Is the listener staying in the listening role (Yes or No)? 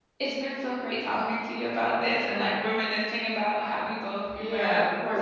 No